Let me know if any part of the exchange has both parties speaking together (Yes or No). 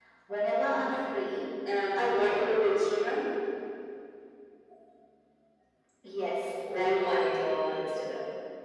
Yes